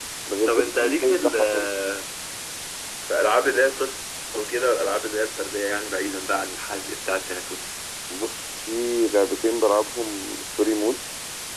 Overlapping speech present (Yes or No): Yes